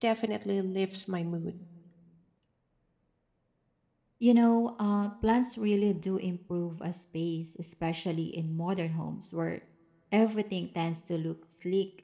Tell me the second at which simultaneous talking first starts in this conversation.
none

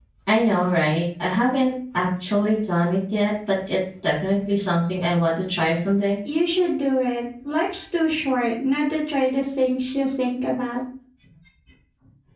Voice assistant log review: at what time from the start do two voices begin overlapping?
none

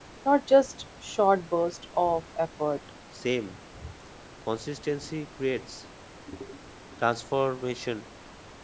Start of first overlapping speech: none

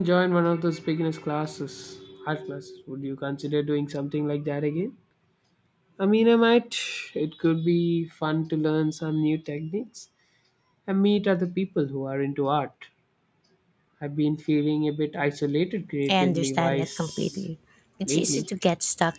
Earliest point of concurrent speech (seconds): 16 s

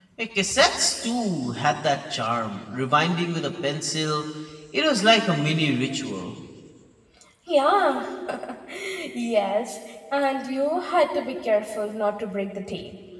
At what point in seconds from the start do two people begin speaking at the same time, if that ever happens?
none

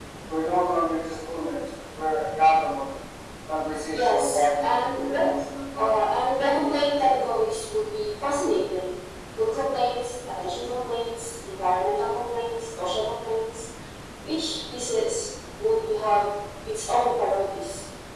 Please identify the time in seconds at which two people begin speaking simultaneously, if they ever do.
4 s

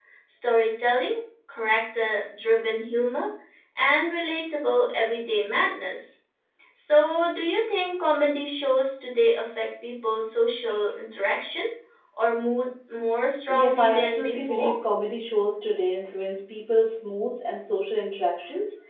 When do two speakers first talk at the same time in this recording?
13 s

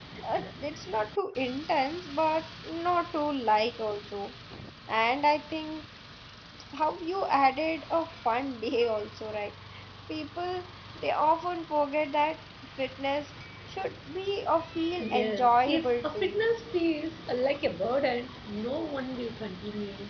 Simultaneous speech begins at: 15 s

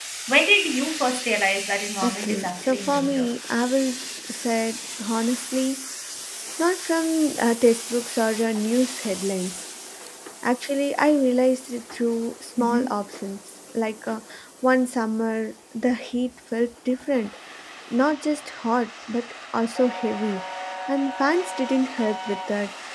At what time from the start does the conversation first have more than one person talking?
2 s

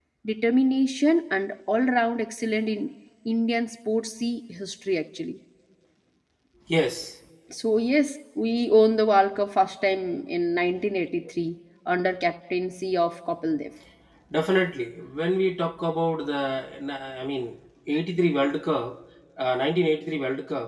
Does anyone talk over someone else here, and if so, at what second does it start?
none

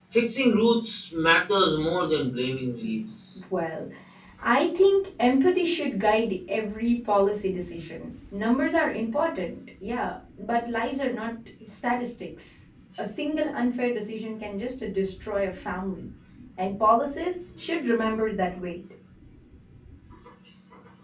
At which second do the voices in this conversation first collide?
none

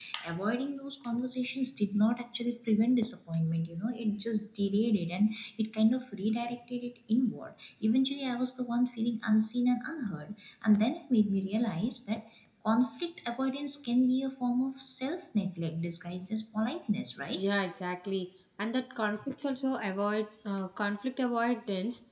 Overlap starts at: none

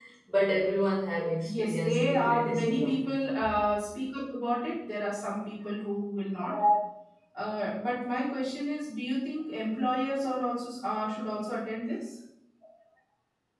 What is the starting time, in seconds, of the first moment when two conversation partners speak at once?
1 s

